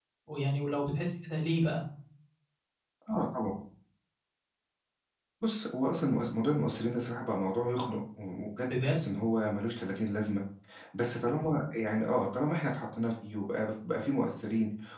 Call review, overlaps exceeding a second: none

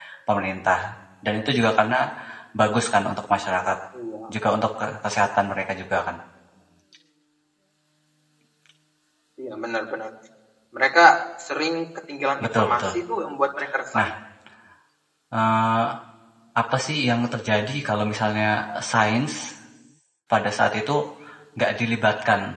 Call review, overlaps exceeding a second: none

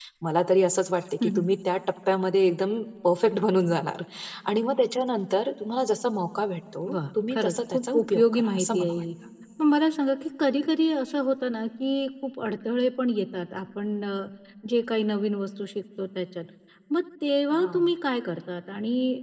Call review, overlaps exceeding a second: present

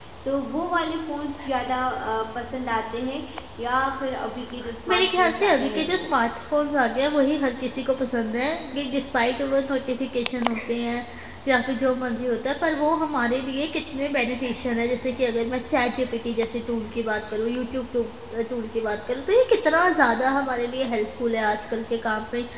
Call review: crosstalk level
present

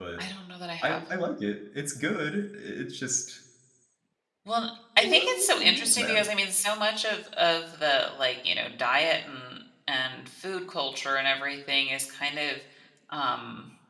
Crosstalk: present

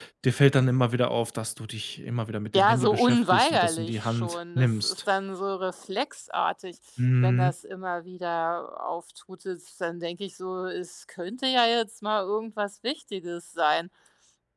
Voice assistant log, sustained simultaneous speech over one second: present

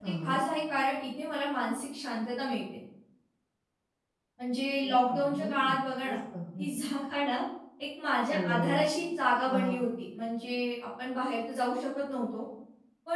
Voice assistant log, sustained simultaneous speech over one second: present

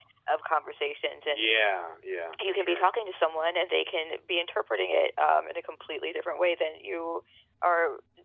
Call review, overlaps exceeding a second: none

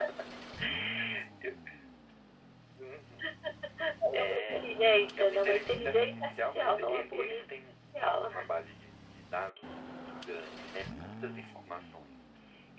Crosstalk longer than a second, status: present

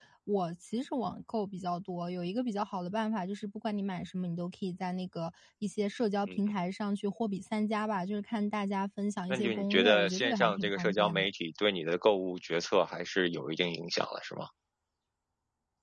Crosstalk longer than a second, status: present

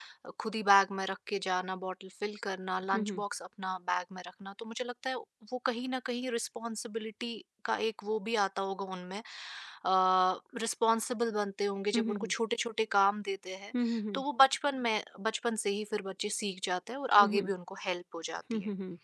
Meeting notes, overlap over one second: none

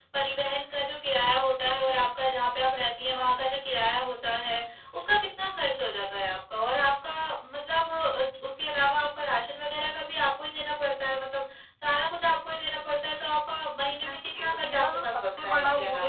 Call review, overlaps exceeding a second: present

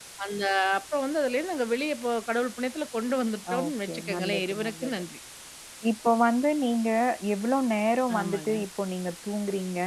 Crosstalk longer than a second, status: present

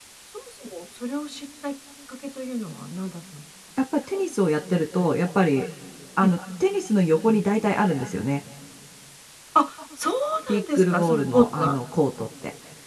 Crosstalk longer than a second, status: present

